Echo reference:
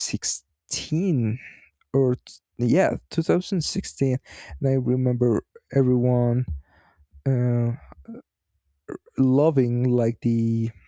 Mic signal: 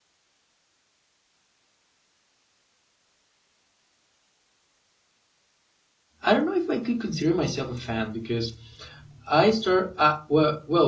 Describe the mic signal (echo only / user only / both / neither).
user only